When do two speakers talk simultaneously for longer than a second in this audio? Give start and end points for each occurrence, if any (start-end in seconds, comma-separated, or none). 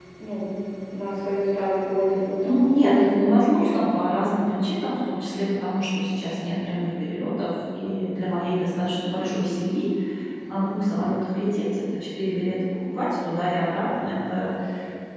2.4-3.7